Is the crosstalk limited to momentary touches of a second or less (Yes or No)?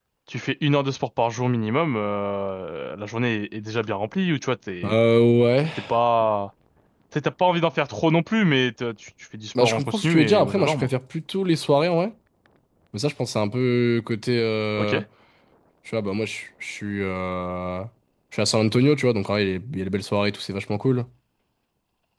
No